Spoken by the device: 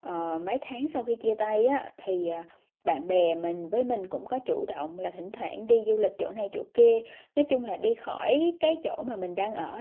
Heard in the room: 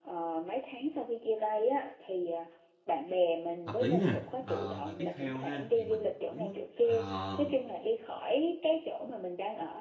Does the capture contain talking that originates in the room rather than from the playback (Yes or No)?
Yes